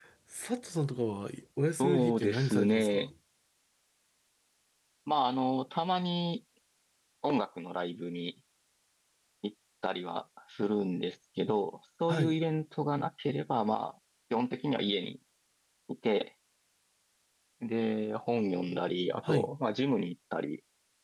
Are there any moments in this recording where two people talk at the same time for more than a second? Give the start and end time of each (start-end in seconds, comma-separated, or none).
1.8-3.1